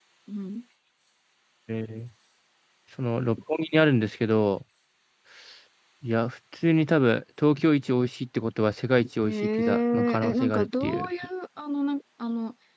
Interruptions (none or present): present